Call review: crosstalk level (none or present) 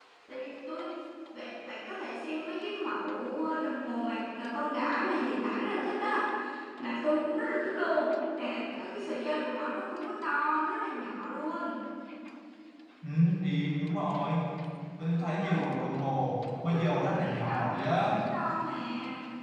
present